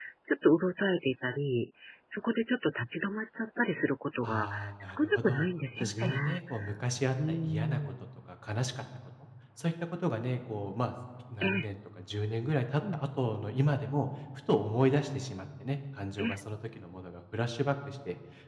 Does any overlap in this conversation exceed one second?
Yes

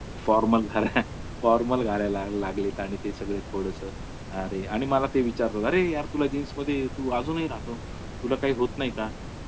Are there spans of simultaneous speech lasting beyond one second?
No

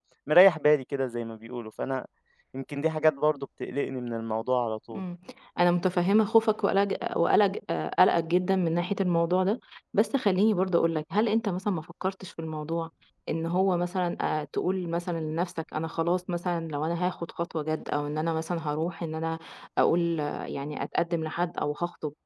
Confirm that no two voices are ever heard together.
Yes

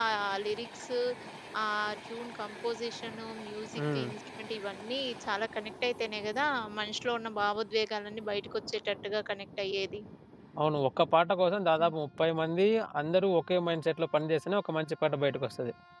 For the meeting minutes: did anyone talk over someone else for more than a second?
No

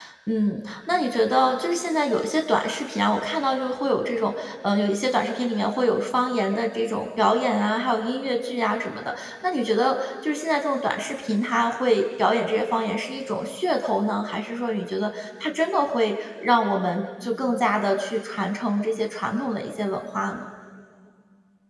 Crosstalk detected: No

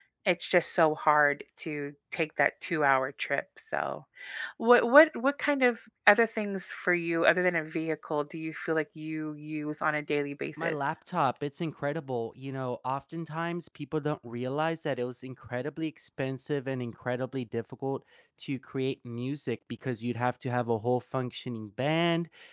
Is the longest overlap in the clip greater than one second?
No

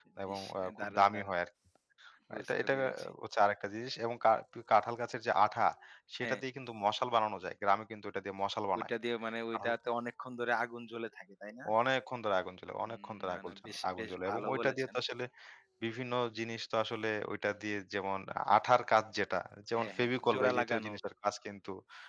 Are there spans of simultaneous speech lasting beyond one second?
Yes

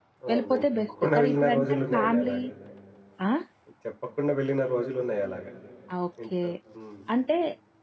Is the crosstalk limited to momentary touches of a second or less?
No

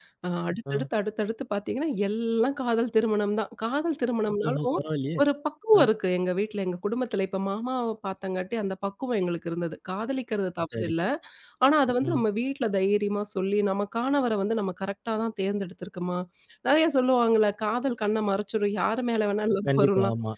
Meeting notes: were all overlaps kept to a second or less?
Yes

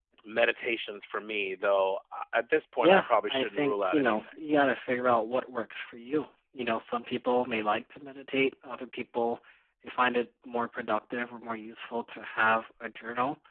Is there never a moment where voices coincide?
No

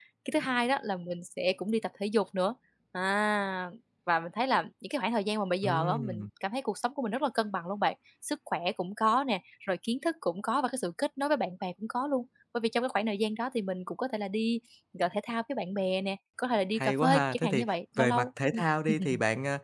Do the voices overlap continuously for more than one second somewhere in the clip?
Yes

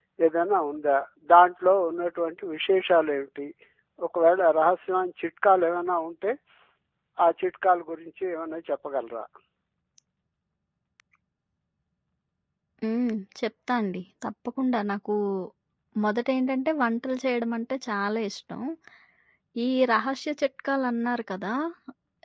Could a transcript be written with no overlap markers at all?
Yes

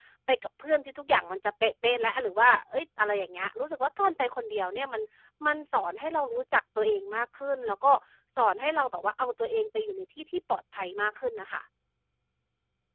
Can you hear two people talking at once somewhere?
No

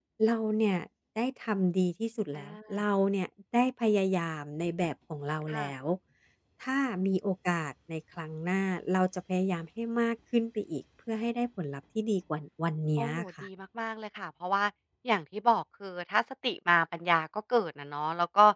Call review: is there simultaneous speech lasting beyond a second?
No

